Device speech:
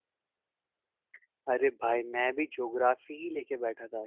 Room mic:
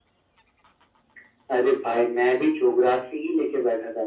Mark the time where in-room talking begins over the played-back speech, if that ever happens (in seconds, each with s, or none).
none